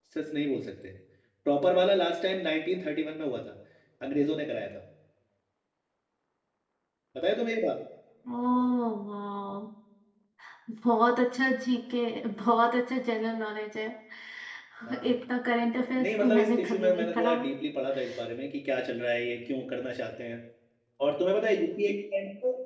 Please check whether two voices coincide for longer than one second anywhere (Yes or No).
Yes